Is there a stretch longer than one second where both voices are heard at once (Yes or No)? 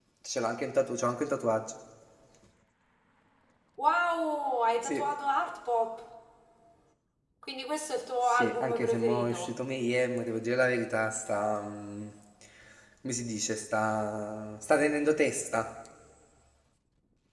Yes